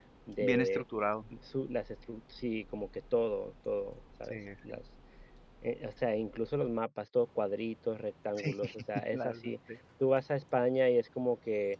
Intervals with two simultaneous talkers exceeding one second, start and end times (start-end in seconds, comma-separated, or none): none